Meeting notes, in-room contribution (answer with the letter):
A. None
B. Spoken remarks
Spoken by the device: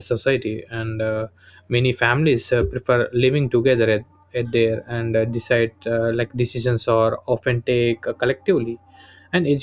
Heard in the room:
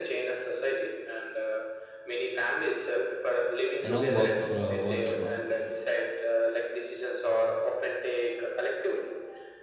B